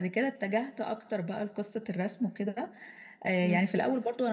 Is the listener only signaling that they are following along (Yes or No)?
Yes